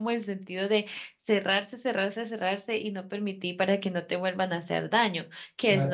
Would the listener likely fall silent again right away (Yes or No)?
Yes